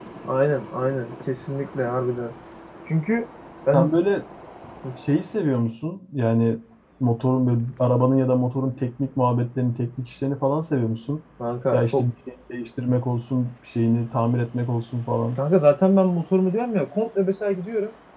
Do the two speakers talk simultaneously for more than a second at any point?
No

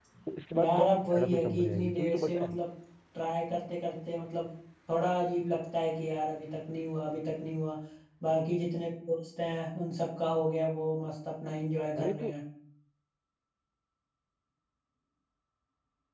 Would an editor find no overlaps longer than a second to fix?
No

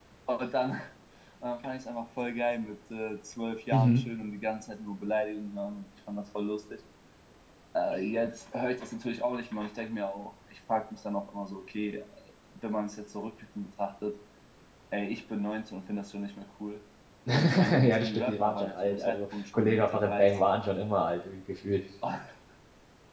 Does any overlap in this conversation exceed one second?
Yes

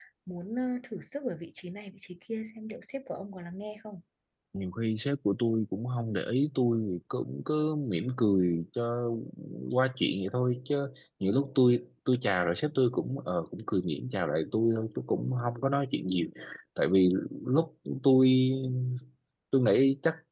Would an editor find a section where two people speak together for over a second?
No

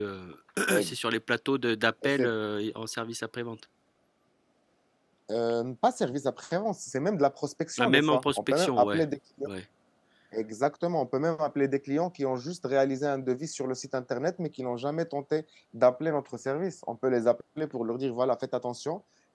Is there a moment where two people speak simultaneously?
Yes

